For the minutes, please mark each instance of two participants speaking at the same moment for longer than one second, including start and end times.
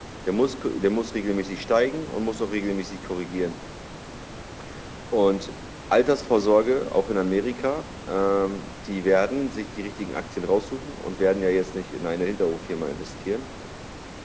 none

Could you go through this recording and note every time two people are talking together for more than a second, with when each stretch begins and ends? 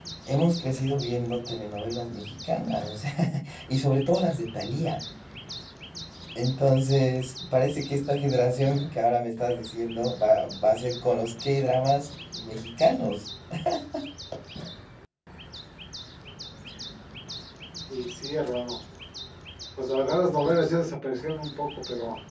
none

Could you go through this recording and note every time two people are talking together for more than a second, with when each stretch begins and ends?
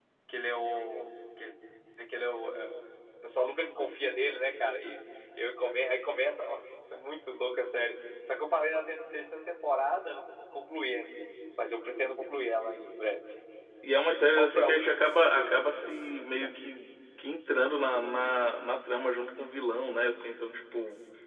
14.3-15.6

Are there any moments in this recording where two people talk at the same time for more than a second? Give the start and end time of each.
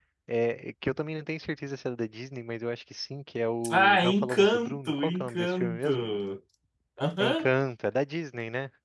3.7-6.0

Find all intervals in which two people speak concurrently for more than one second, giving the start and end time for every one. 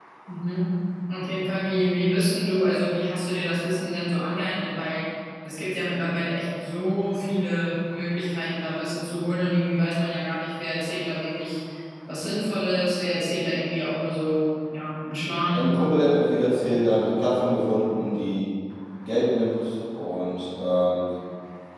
none

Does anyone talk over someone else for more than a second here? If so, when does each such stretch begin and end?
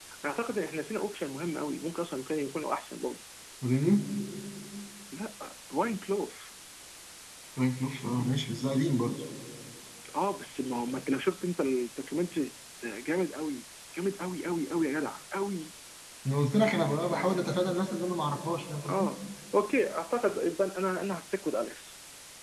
none

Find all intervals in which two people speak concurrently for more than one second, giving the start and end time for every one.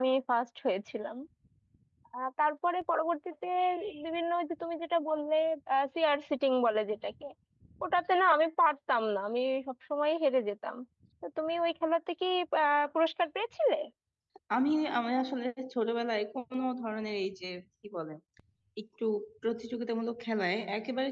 none

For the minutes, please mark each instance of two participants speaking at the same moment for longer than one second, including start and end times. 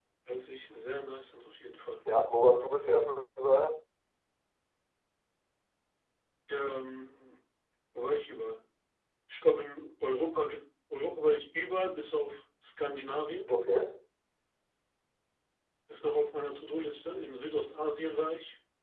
none

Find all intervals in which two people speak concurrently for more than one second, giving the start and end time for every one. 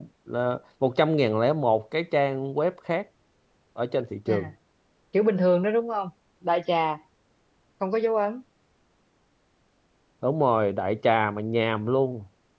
none

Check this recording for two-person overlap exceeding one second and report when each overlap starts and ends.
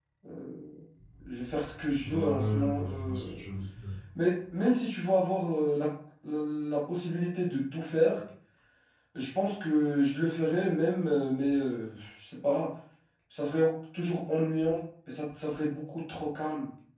2.1-3.4

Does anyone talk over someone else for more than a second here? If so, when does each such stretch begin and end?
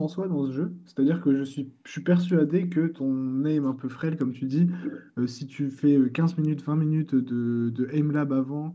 none

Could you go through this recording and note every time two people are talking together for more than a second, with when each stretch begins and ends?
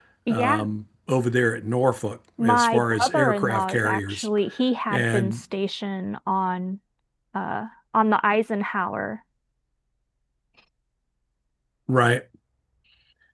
2.4-4.3

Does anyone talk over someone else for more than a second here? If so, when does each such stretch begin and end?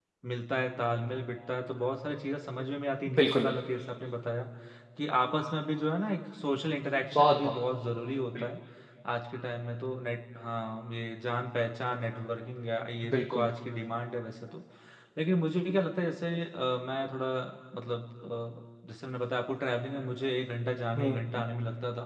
none

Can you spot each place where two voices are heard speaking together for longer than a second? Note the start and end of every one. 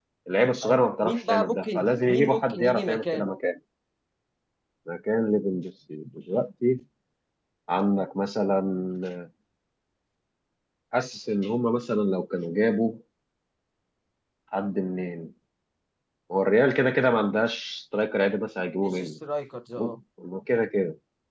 0.6-3.3

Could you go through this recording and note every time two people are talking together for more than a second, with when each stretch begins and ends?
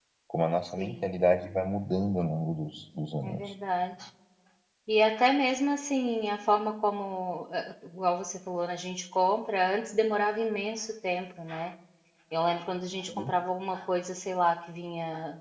none

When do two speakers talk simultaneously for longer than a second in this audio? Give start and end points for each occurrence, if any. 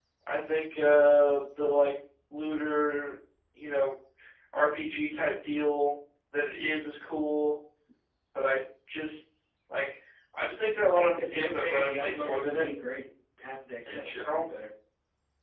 10.8-12.6

